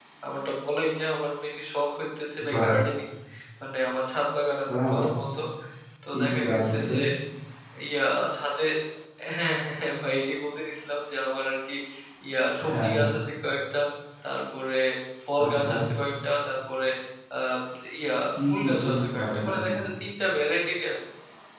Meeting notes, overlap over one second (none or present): present